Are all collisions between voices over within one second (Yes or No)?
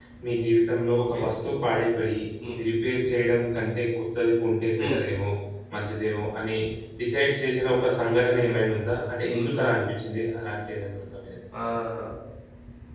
Yes